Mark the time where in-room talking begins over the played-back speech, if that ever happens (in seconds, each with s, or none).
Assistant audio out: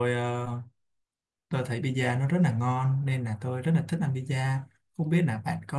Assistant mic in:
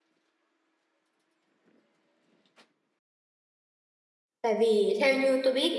4.4 s